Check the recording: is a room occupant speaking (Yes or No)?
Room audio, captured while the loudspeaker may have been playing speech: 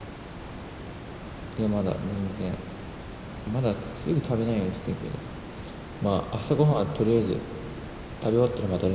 Yes